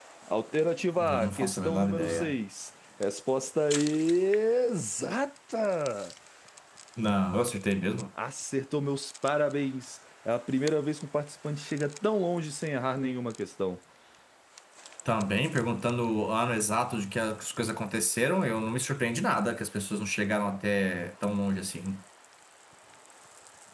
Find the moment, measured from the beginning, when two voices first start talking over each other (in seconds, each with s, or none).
1.0 s